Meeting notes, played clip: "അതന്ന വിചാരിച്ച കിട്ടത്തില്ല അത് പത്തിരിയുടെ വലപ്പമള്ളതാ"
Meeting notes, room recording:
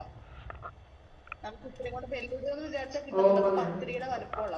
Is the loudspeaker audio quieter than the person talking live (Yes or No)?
Yes